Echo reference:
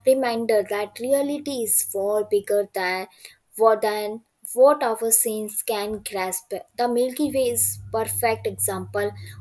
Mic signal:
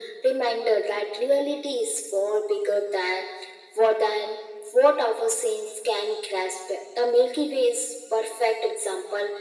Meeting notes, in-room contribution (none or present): none